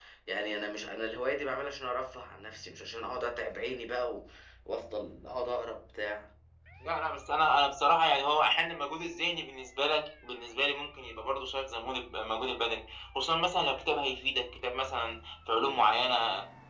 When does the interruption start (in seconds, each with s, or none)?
none